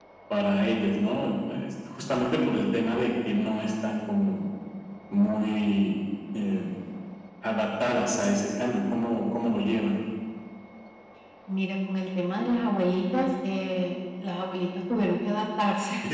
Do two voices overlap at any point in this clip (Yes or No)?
No